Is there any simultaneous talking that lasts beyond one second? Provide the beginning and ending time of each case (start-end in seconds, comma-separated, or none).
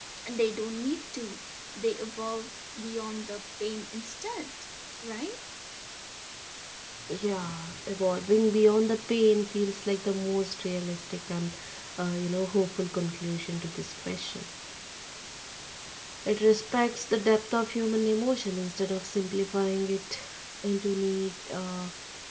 none